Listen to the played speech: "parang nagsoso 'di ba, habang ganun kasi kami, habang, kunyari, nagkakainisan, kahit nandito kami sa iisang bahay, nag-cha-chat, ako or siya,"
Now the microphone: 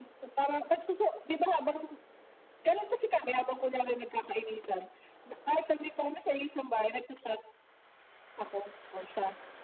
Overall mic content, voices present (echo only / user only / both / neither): echo only